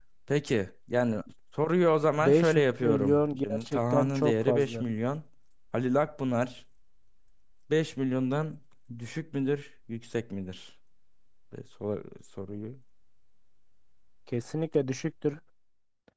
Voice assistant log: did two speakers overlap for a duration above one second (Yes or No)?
Yes